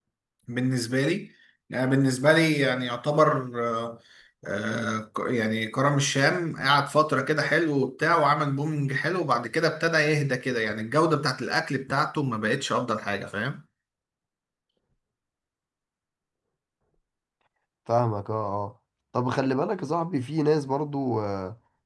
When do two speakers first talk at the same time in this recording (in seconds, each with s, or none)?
none